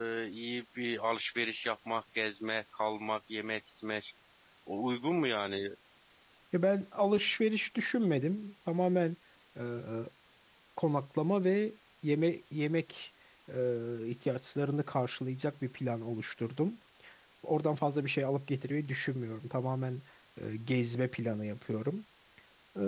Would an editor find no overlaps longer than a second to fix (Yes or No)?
Yes